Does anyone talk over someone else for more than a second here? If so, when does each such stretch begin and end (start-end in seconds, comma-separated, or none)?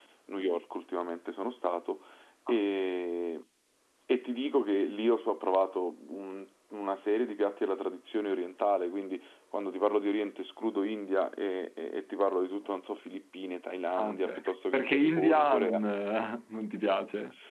14.0-15.8